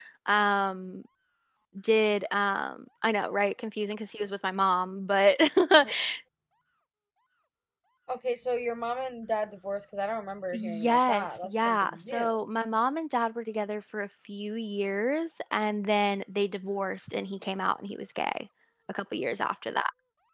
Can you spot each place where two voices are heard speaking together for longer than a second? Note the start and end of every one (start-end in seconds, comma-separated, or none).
10.5-12.4